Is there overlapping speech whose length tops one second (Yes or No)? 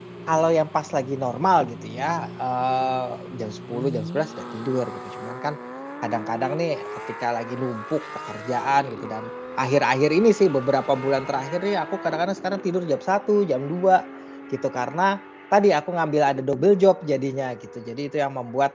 No